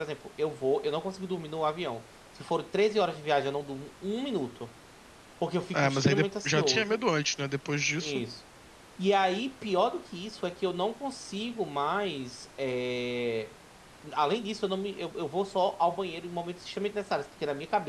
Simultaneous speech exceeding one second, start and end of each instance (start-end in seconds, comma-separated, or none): 5.7-7.0